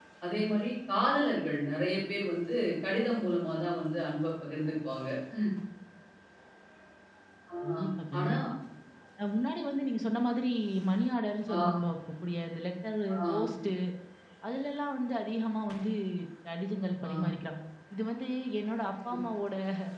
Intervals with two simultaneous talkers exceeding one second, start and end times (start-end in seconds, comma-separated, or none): none